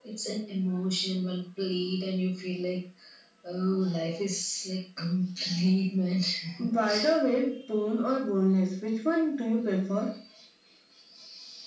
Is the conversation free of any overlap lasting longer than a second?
Yes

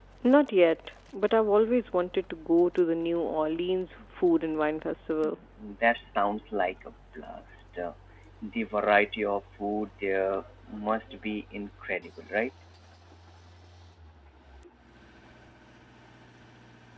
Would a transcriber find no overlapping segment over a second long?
Yes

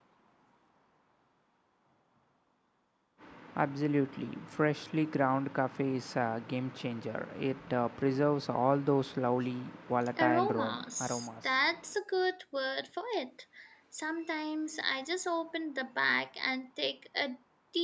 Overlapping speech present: Yes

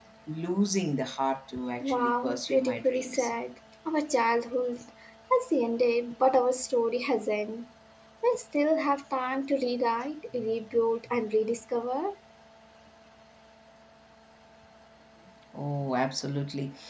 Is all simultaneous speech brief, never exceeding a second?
No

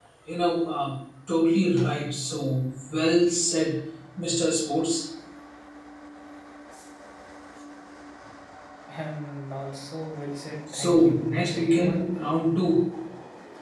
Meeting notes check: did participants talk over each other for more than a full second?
Yes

